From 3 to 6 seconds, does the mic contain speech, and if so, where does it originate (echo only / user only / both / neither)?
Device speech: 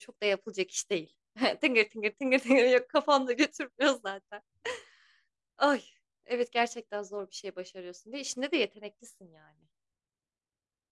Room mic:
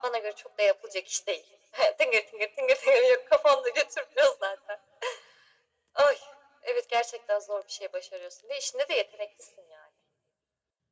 echo only